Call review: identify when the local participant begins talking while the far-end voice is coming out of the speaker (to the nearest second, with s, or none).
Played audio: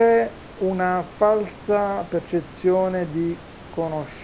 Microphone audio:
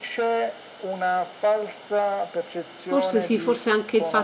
3 s